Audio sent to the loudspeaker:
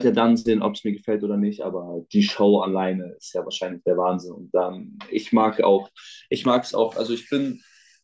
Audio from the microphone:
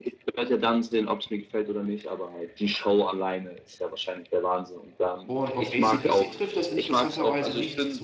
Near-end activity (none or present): present